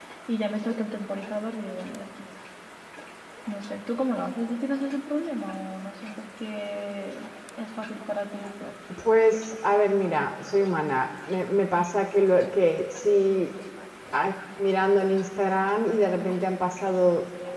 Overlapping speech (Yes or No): No